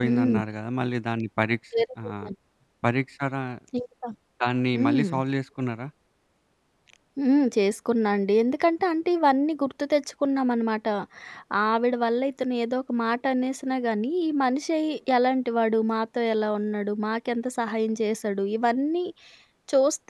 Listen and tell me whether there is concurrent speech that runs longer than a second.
No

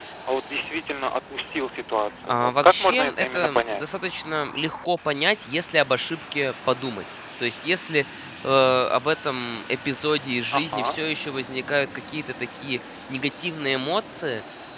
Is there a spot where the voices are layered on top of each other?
Yes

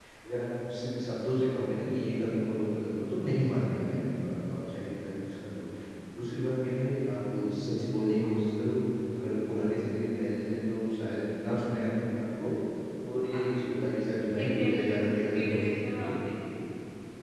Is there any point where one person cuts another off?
Yes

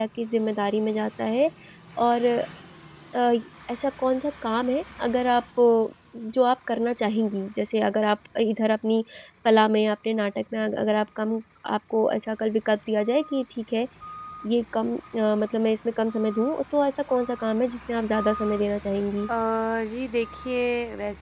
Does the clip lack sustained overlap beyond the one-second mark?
Yes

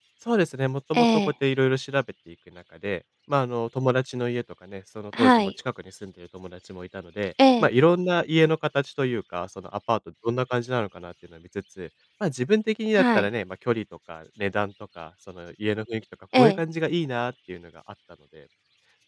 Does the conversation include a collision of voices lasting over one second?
No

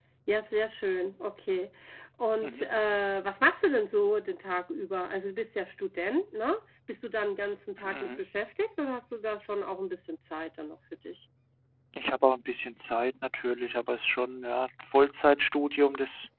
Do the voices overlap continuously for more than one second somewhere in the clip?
No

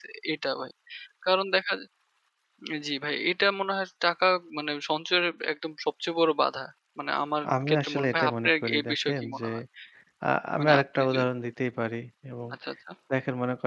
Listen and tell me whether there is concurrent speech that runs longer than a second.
Yes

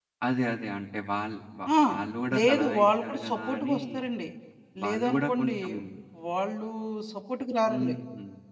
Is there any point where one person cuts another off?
Yes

